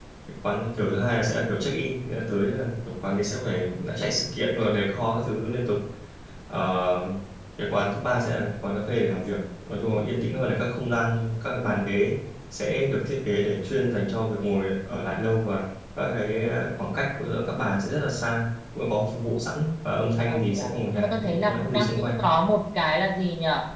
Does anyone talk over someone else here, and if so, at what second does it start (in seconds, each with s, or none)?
20.3 s